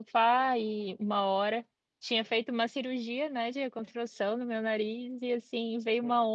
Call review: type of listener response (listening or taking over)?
listening